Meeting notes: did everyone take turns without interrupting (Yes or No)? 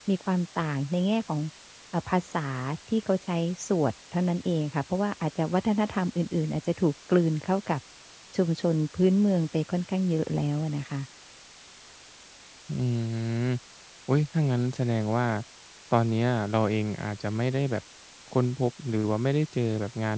Yes